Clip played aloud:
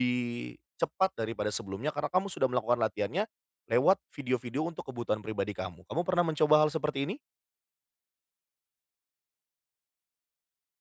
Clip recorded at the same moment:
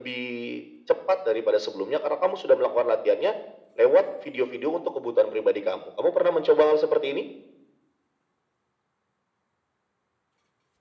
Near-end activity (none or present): none